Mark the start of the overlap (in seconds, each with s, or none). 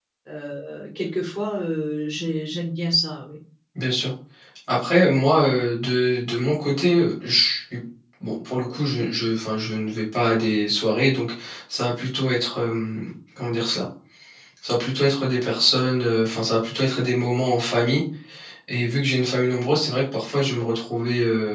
none